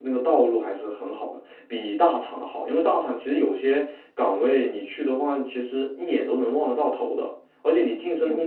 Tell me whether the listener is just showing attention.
Yes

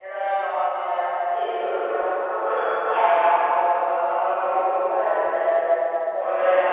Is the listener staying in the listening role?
Yes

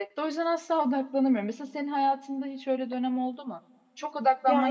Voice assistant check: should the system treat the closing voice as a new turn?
No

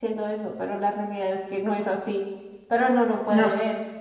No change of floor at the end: Yes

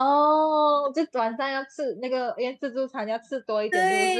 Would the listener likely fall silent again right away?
No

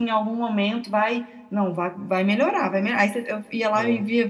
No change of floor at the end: Yes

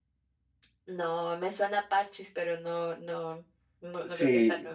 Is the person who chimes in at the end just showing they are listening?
No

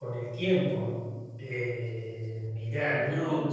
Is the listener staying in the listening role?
Yes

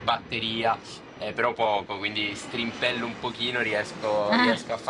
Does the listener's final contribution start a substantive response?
No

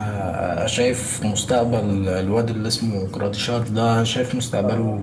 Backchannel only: Yes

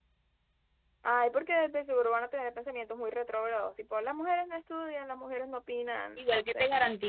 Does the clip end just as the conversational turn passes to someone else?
Yes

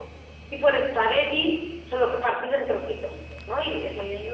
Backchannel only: No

